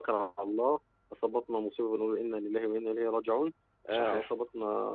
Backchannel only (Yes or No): Yes